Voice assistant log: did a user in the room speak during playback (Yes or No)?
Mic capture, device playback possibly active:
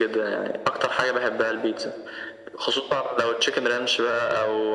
No